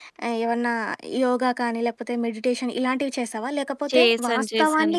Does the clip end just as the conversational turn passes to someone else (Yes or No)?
No